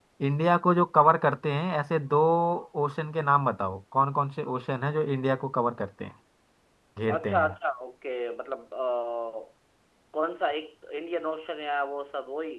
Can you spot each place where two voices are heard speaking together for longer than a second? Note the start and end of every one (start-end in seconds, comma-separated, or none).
none